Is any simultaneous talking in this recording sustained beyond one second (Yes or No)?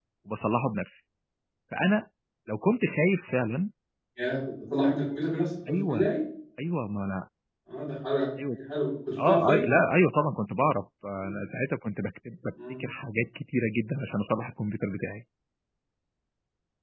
No